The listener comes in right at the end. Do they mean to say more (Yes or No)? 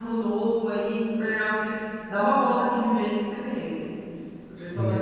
No